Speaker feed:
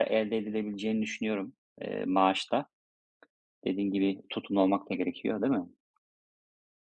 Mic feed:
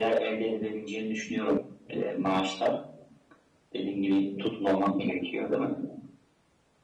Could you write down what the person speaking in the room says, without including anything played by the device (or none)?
none